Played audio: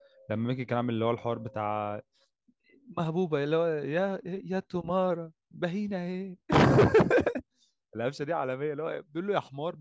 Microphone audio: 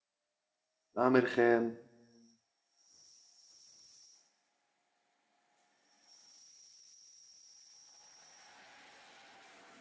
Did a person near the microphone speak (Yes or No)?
Yes